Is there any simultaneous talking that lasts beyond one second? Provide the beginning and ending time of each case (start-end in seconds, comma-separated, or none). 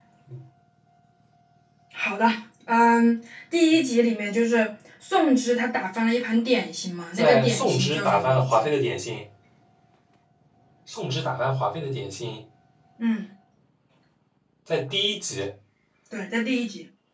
7.2-8.7